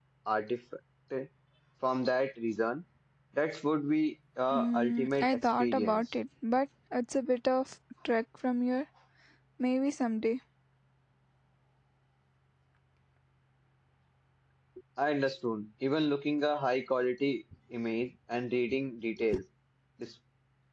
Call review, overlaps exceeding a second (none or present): present